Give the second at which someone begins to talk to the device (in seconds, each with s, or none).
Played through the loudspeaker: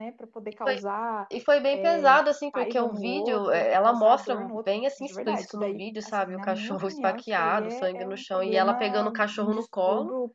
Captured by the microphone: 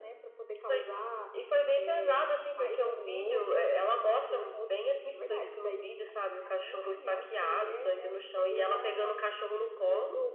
none